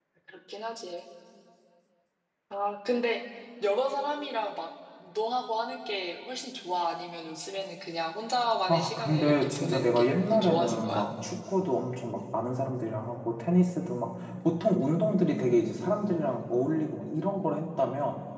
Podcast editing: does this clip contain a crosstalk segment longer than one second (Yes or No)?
Yes